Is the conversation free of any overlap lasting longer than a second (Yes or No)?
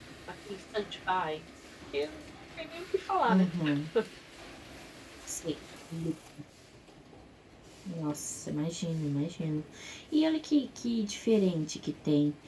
Yes